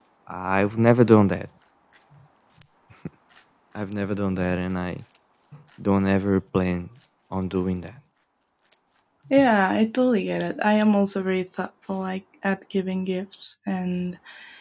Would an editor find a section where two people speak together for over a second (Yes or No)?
No